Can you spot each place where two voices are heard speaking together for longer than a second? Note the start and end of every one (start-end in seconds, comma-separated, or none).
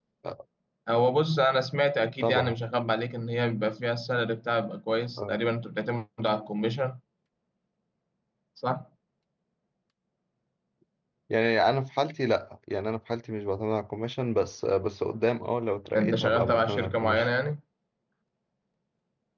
15.9-17.3